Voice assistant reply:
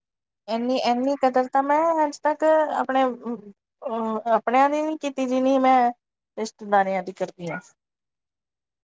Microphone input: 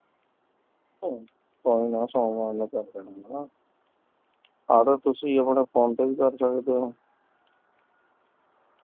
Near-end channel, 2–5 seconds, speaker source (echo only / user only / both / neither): user only